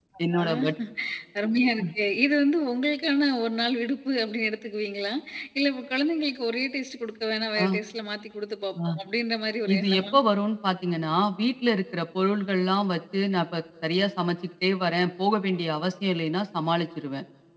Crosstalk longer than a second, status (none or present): none